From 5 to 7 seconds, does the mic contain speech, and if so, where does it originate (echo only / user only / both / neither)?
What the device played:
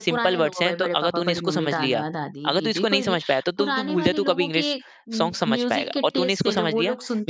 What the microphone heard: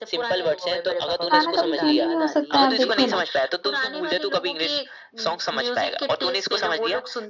echo only